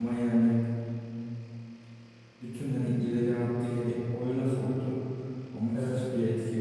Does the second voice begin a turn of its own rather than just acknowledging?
No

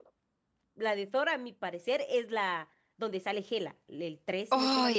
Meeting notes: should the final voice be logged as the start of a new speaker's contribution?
Yes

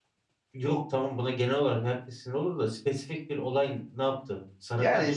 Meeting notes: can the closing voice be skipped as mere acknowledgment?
No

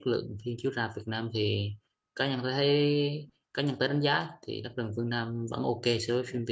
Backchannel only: No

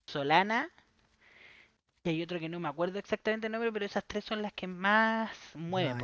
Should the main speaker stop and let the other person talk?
Yes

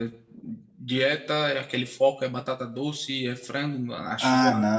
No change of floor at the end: No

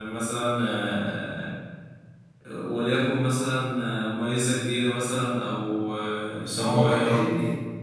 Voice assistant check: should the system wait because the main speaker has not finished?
No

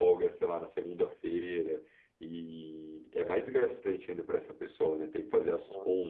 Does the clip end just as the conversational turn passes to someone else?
No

